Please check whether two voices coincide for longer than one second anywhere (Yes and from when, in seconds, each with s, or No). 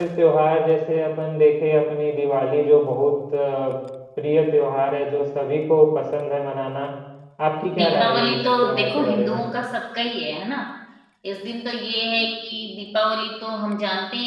Yes, from 7.8 s